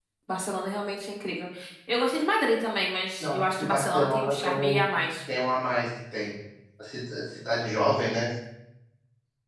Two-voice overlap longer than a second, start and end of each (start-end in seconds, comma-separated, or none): 3.2-4.8